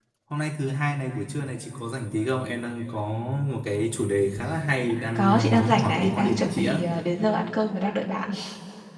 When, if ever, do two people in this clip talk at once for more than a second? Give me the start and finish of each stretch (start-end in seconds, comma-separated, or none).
5.2-6.8